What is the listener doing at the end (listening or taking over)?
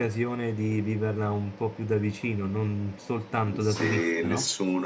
taking over